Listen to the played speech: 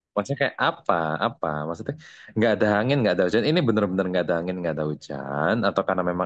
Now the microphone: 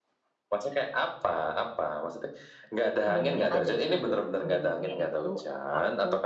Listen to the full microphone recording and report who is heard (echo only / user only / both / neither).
both